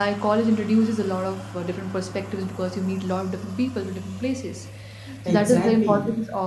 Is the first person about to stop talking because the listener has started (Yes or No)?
No